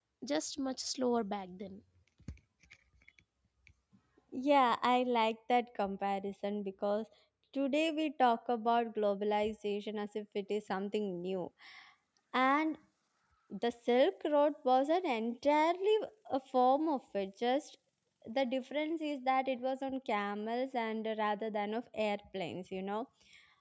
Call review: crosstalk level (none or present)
none